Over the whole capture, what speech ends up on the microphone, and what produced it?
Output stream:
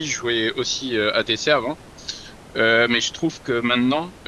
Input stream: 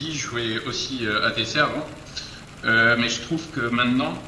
echo only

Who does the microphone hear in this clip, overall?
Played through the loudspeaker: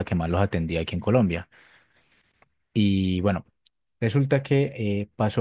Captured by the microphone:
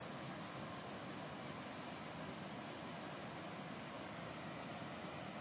neither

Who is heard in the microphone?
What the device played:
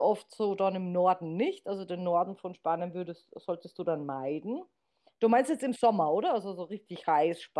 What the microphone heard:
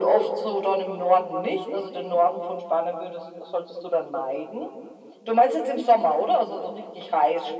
echo only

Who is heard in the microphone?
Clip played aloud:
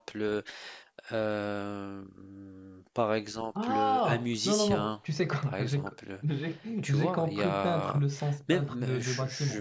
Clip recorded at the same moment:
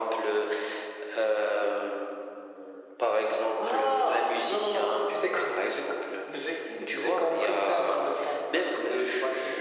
echo only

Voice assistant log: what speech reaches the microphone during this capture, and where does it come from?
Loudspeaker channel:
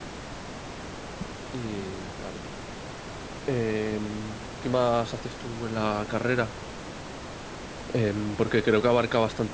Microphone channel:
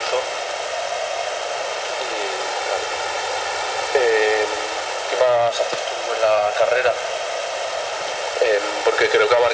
echo only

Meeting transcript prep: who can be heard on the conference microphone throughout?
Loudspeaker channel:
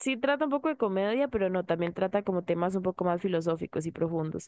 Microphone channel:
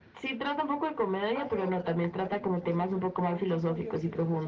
both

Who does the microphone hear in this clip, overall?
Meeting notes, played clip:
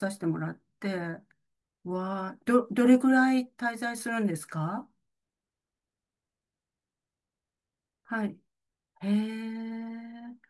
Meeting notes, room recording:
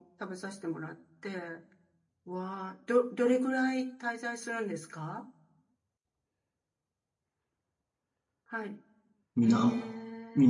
both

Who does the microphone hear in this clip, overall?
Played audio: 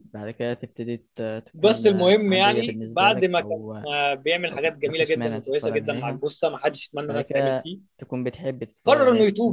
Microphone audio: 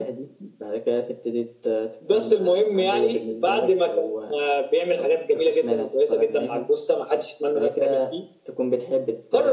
echo only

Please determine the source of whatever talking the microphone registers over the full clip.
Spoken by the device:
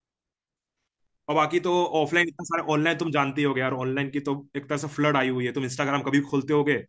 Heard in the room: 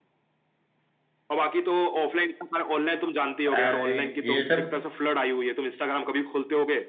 both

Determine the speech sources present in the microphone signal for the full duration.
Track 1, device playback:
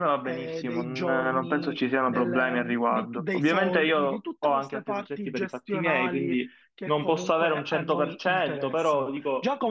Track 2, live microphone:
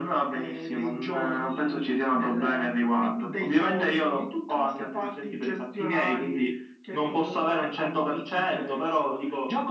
echo only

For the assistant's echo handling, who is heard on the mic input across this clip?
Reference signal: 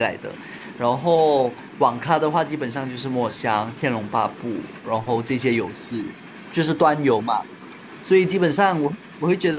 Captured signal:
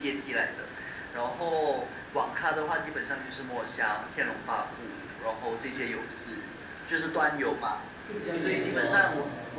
both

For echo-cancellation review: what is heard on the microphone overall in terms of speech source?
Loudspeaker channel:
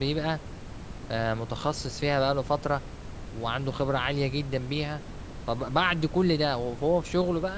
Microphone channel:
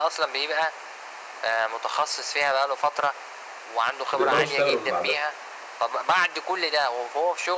both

